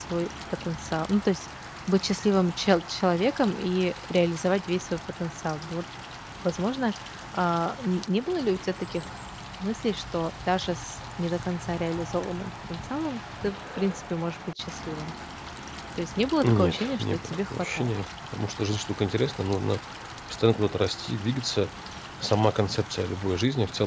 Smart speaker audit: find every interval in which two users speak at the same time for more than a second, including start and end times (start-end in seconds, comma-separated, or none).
16.4-17.9